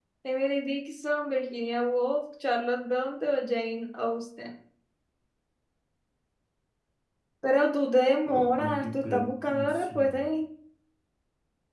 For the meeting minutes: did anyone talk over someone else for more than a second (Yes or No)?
Yes